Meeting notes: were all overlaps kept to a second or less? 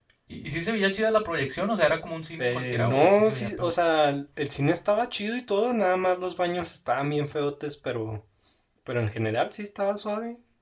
No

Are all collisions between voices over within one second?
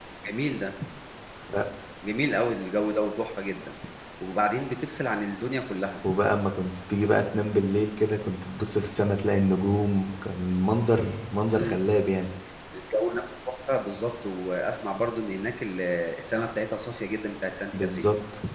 Yes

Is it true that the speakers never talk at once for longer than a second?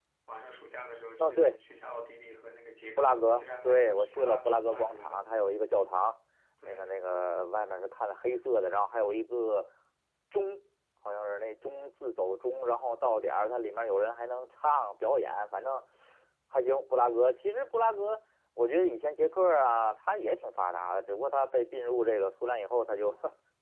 No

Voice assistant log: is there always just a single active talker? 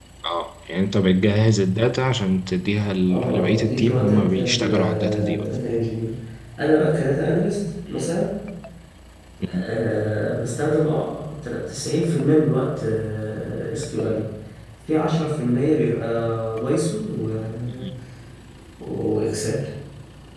No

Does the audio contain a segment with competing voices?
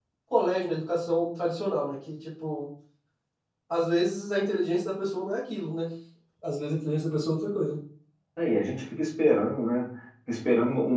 No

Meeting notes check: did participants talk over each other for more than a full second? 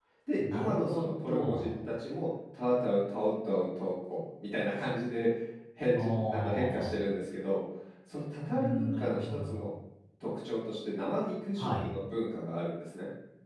Yes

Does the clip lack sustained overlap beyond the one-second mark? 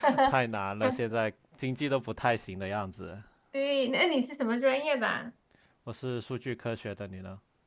Yes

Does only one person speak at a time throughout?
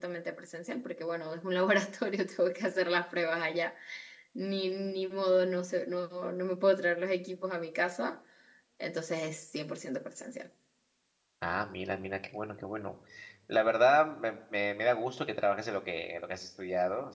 Yes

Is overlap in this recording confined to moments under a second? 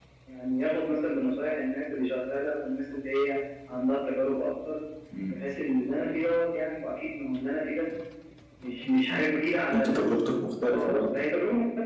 Yes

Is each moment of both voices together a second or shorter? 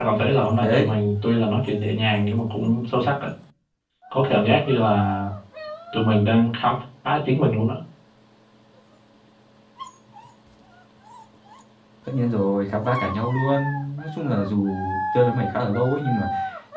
Yes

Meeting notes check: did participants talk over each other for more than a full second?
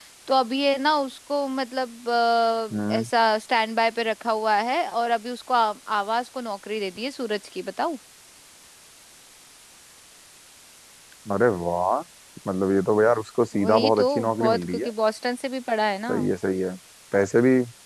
Yes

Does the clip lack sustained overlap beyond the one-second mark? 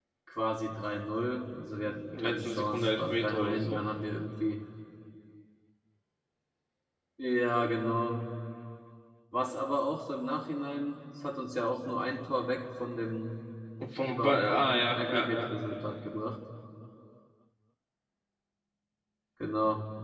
No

